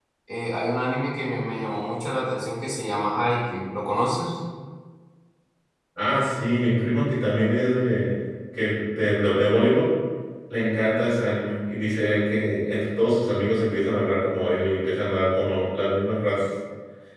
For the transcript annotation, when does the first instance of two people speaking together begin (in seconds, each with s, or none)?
none